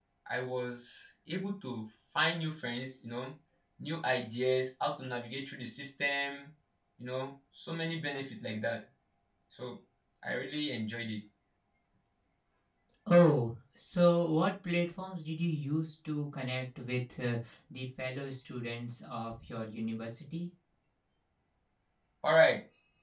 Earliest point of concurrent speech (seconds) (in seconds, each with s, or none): none